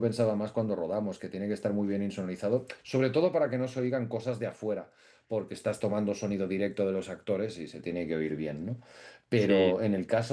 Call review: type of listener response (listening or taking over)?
listening